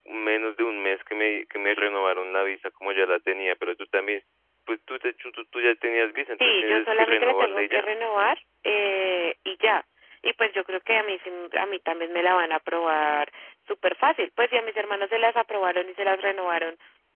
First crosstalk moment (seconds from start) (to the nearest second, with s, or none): 6 s